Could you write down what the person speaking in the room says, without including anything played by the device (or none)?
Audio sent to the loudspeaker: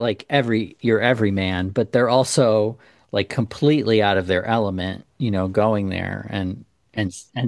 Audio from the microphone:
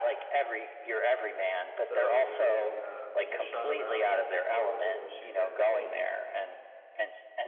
So they uh, they just shot around it, and he wasn't able to shoot that scene.